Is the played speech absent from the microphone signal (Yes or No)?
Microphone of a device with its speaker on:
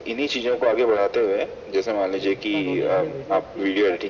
No